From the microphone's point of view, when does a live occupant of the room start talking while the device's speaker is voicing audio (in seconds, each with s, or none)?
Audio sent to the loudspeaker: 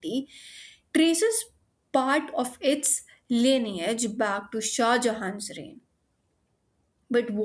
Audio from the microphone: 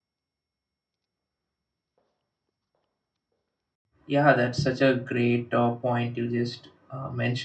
4.1 s